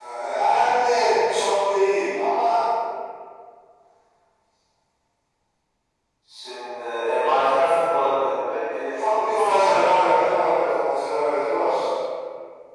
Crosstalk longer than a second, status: present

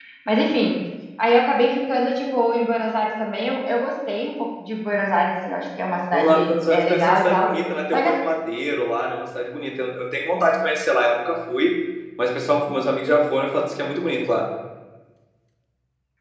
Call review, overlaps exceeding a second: present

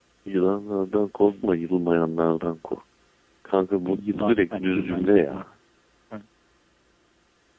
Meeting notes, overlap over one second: present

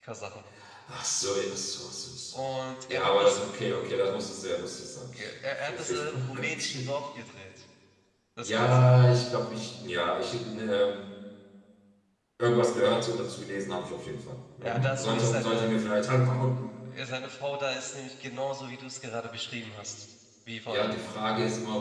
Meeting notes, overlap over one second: present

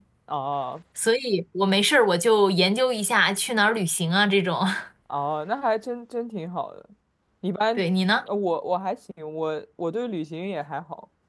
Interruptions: none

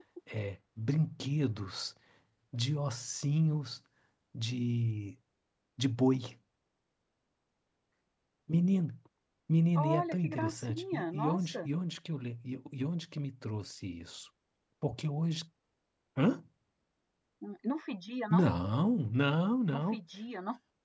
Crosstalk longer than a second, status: present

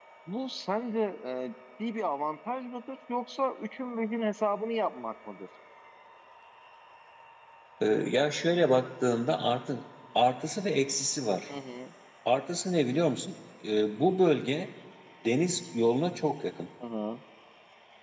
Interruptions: none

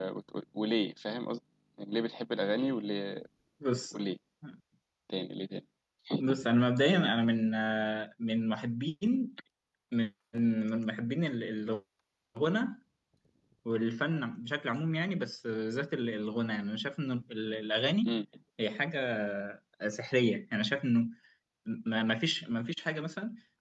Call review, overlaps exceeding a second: none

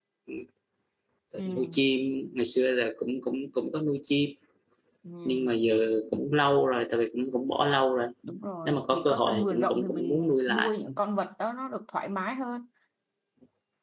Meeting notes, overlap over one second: present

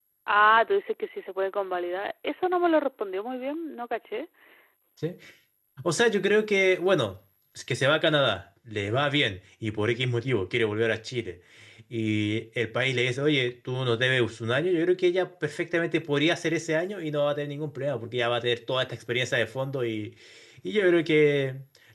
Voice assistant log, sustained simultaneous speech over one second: none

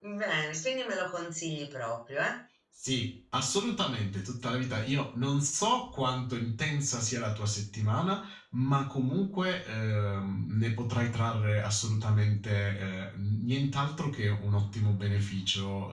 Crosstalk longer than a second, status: none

